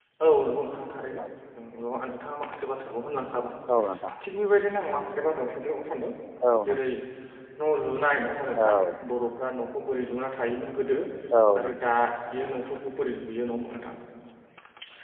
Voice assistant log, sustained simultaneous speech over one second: none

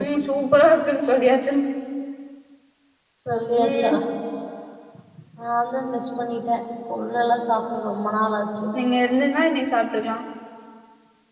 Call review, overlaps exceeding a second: none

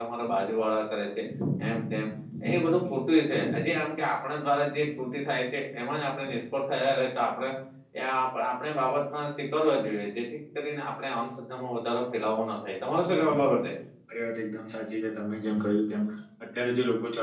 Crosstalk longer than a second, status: none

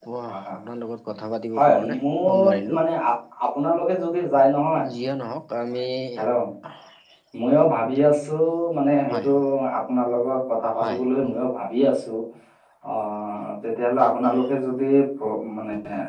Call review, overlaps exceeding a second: present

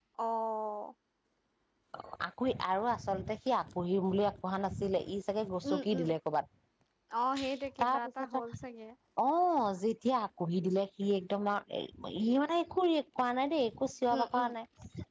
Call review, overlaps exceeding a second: none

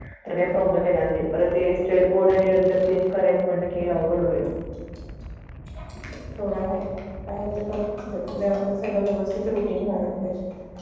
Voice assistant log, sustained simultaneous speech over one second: none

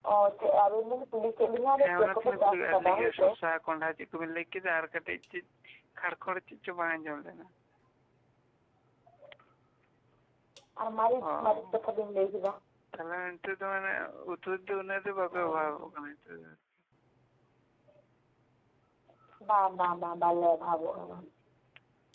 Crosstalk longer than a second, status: present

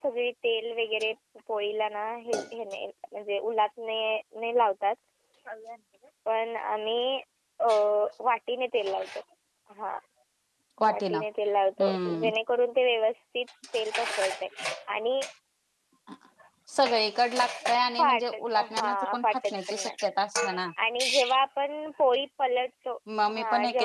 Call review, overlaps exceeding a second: present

